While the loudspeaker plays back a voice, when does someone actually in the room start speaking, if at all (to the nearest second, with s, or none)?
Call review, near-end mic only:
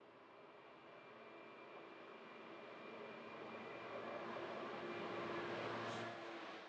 none